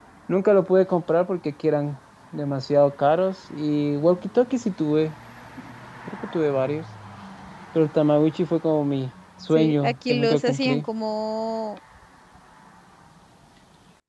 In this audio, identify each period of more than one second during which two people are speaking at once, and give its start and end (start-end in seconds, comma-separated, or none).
9.6-10.8